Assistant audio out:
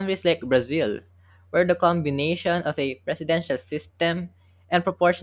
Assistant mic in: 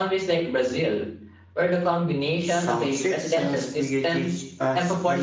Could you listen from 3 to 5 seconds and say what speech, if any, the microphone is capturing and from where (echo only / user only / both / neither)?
both